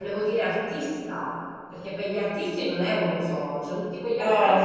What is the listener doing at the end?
taking over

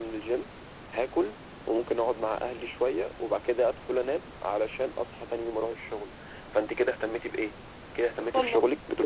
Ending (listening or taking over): listening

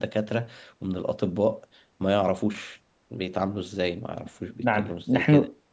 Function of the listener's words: taking over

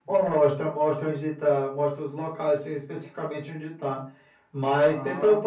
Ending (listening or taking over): listening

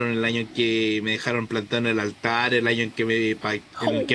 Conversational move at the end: listening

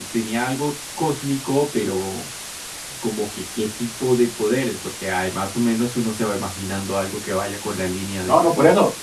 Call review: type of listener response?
taking over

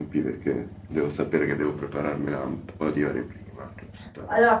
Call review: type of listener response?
taking over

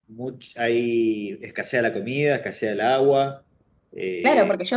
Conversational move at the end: taking over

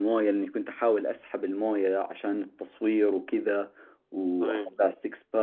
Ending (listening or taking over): listening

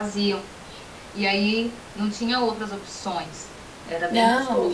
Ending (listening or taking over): taking over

